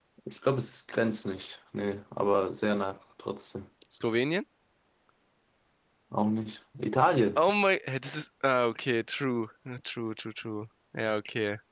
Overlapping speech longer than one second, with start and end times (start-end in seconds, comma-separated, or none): none